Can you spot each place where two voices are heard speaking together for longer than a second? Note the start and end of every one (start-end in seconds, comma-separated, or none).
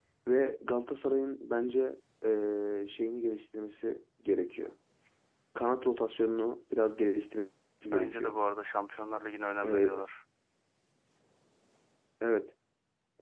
none